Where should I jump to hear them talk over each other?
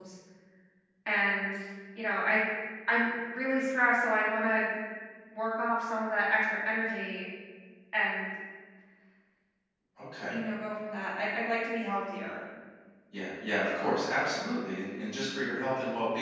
none

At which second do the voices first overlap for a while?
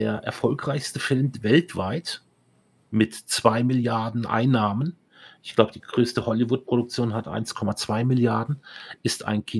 none

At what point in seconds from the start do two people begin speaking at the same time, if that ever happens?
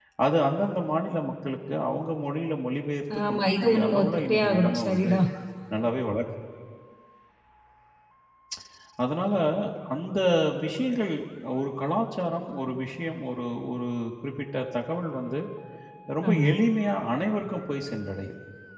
3.3 s

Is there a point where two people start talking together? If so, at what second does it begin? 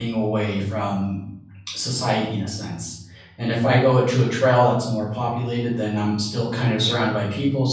none

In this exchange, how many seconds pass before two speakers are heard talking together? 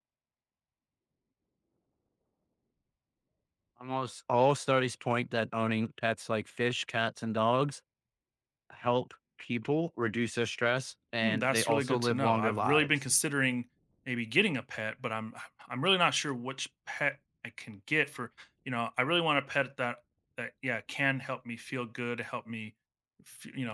11.2 s

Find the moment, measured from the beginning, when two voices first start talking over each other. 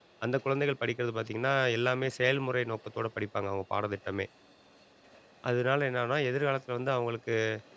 none

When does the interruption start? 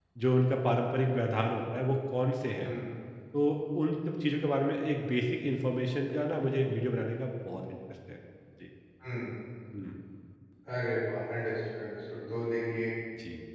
none

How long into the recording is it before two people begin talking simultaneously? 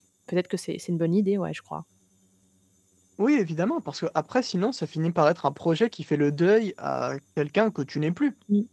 none

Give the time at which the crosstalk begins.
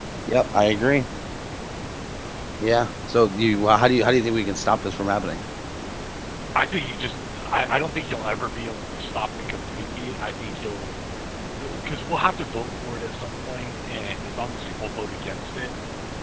none

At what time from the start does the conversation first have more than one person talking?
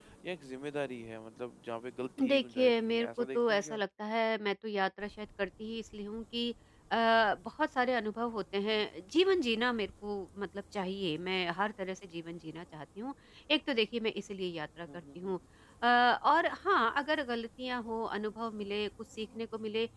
2.3 s

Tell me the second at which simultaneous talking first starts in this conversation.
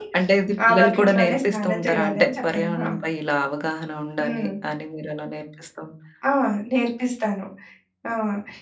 0.7 s

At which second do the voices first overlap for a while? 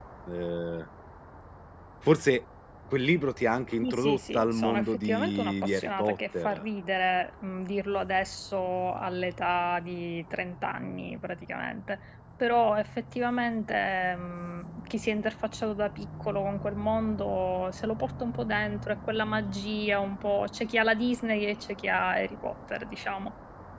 3.8 s

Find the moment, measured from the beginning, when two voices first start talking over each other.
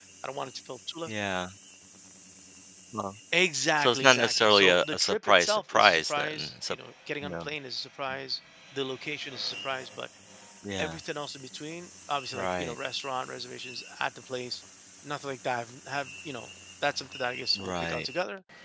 3.8 s

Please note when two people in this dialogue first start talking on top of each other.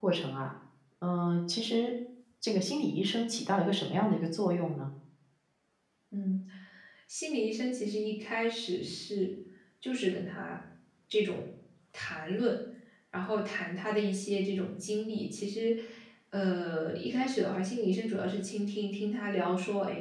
none

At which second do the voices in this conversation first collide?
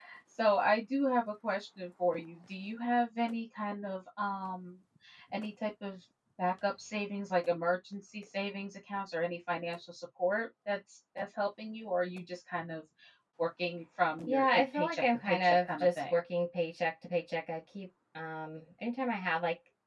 14.3 s

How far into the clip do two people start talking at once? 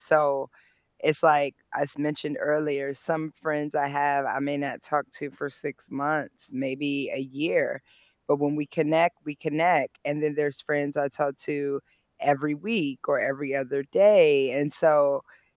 none

